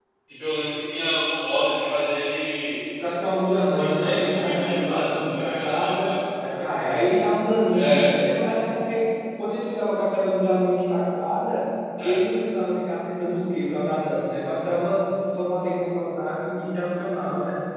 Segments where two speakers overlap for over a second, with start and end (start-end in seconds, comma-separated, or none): 3.8-6.1